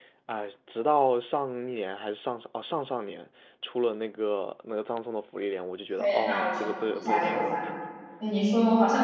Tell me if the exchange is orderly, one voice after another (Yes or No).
No